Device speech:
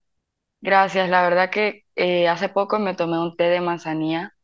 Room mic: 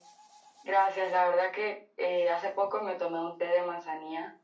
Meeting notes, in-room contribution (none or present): none